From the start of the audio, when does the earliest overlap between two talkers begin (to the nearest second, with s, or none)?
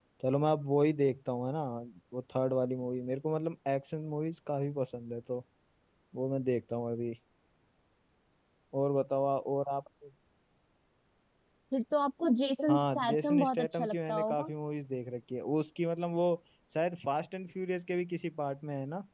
13 s